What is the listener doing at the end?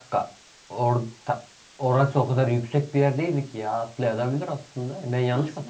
taking over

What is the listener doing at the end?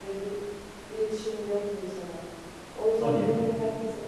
listening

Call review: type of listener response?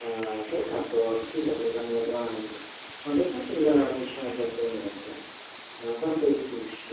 listening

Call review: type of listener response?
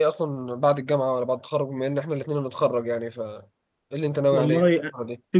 taking over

